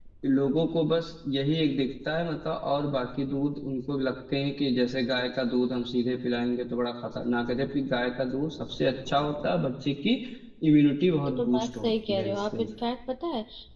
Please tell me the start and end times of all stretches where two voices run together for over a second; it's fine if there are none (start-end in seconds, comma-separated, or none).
11.3-12.6